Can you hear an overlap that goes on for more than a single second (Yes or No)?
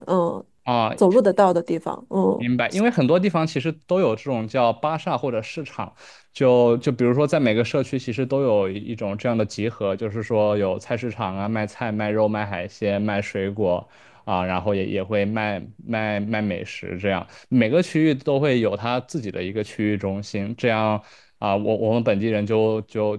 No